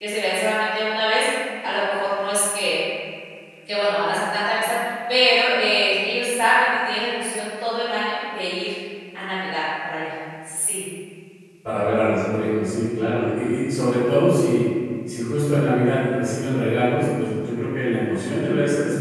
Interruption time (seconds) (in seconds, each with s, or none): none